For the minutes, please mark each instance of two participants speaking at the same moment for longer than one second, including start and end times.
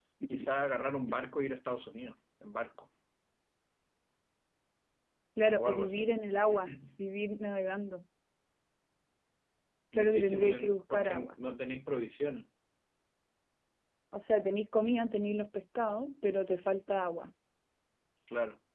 10.0-11.3

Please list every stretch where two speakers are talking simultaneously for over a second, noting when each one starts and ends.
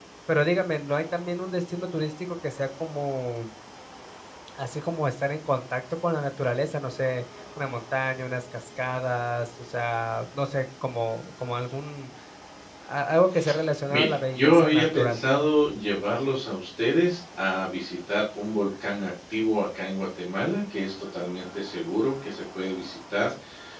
13.9-15.2

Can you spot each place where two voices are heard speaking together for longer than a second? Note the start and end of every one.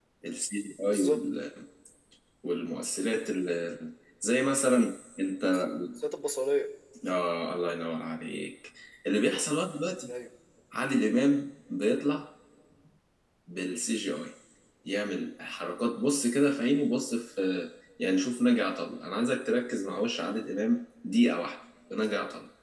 none

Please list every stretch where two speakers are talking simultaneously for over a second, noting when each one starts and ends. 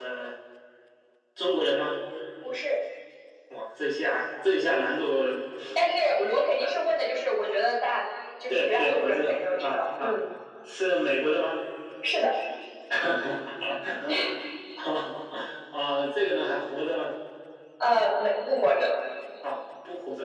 8.5-10.1

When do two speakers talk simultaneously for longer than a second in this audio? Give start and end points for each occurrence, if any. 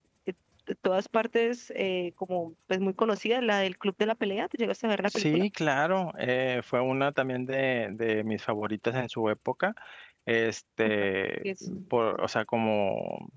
none

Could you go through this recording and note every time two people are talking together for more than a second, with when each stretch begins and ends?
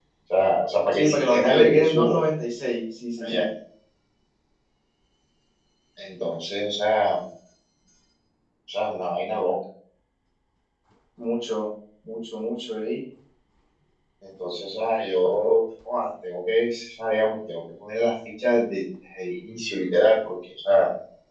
0.9-2.2

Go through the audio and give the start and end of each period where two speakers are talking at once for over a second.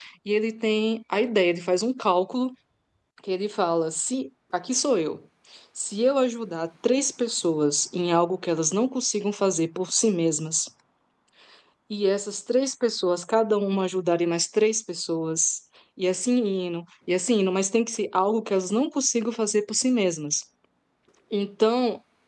none

